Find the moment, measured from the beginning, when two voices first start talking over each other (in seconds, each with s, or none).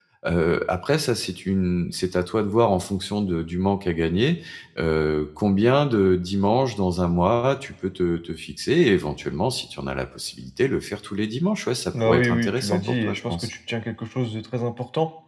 11.9 s